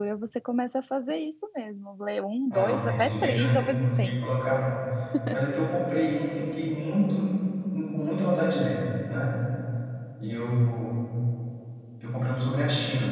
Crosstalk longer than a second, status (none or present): present